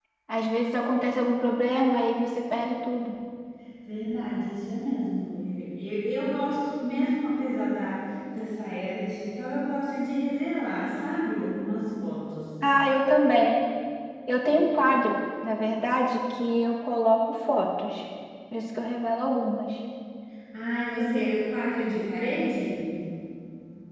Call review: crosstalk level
none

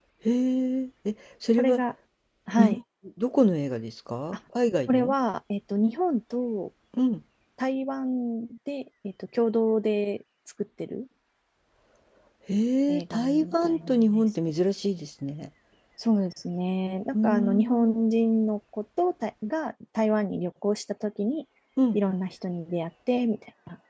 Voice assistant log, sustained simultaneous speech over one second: present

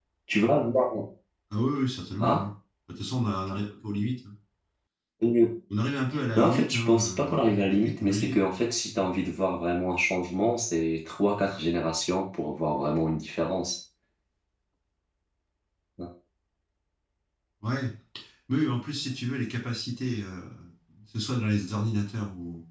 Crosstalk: present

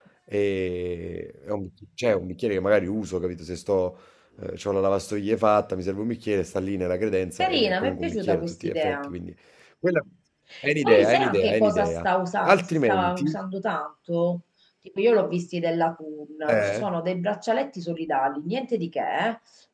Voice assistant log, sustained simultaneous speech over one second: present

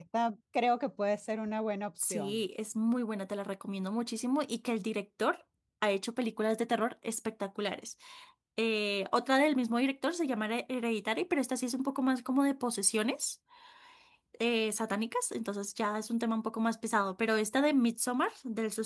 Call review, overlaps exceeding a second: none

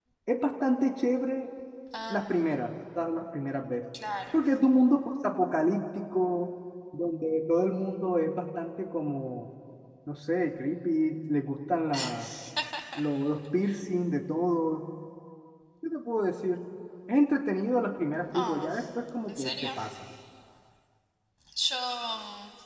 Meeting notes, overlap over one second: none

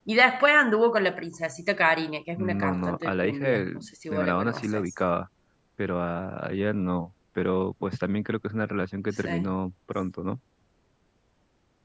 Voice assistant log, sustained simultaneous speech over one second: present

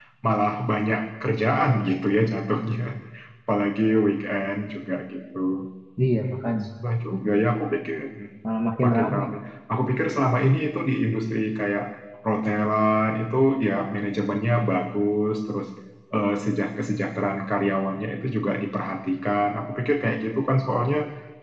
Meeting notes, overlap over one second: none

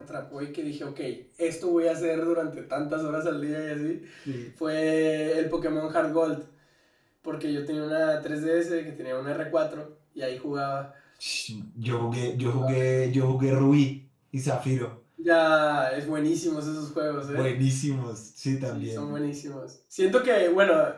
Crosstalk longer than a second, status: none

